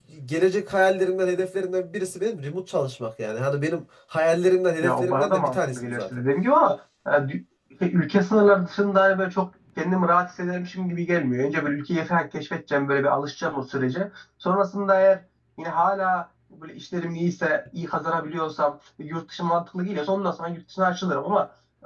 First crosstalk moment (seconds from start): 4.8 s

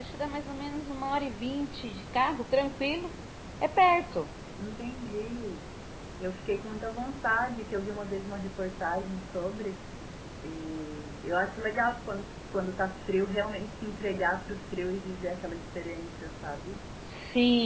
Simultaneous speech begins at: none

